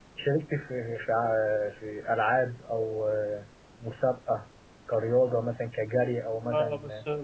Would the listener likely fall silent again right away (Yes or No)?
No